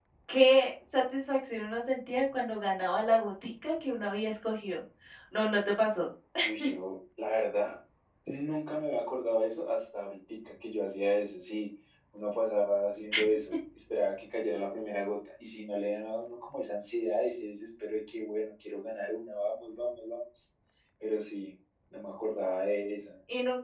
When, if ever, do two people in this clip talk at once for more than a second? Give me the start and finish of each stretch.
none

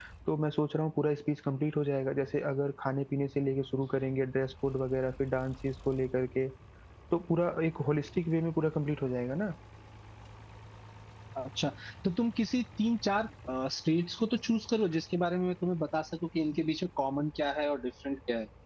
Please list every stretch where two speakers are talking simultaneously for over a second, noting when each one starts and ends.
none

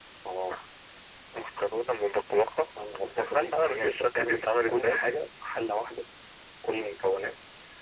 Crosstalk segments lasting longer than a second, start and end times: 3.2-5.0

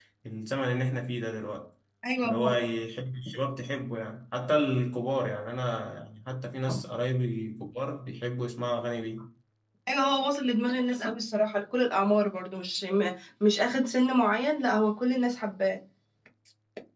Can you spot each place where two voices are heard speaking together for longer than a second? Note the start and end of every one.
none

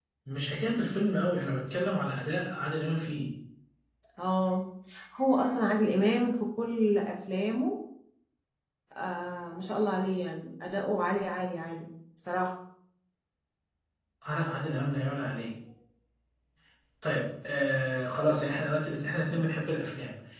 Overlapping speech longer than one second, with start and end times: none

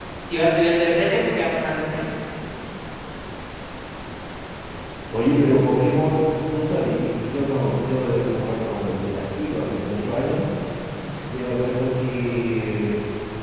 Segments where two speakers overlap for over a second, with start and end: none

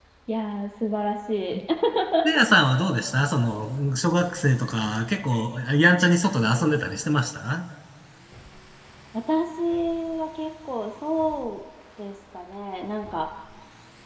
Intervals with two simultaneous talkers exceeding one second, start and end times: none

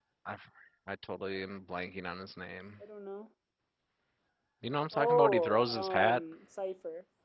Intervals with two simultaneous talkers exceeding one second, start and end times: 4.9-6.2

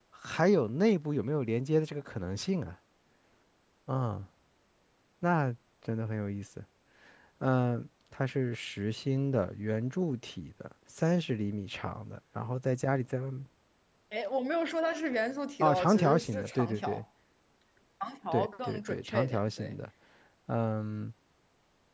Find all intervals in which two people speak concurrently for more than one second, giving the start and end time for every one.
15.6-17.0, 18.3-19.8

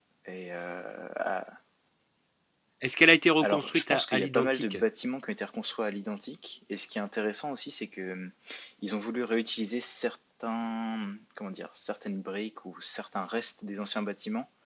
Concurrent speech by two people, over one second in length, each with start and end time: 3.4-4.8

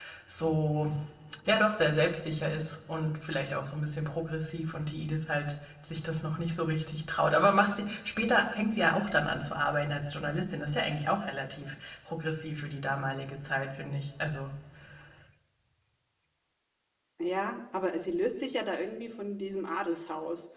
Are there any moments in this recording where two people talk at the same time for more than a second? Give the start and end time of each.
none

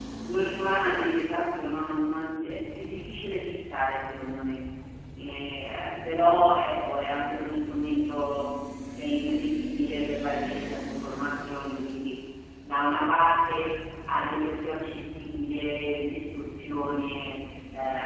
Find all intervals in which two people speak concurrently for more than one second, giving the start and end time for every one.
none

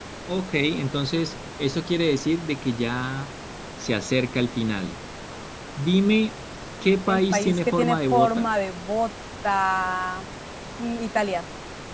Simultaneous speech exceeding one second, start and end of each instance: 7.1-8.5

